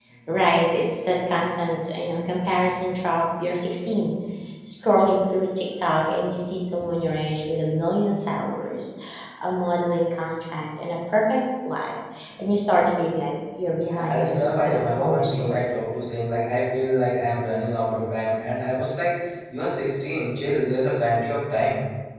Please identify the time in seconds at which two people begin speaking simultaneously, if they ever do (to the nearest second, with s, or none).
14 s